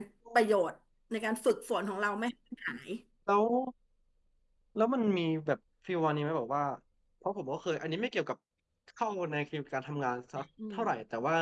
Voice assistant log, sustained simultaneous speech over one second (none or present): none